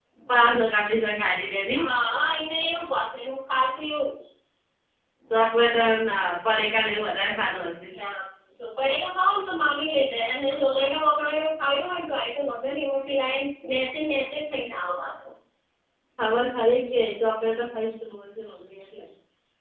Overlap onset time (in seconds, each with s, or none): none